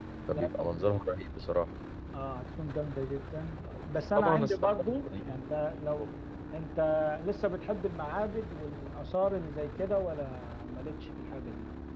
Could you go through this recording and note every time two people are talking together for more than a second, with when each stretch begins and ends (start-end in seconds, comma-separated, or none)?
4.2-5.4